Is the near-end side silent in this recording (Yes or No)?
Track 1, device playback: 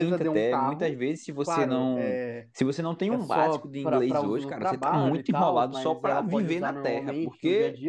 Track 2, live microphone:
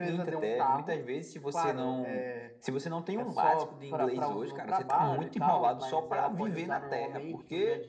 Yes